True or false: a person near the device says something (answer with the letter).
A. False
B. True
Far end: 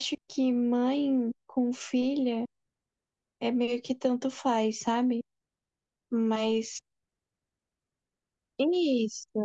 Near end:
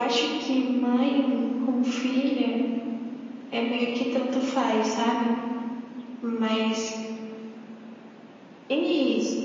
A